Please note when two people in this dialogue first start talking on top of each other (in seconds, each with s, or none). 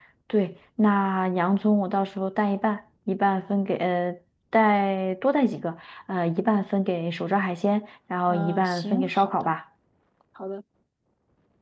8.3 s